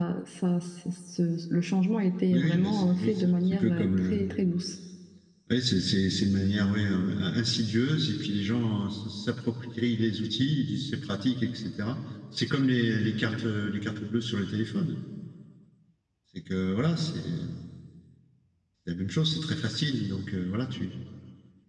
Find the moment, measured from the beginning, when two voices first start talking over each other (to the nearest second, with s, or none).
2 s